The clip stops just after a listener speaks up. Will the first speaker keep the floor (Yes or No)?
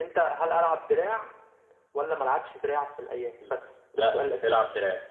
No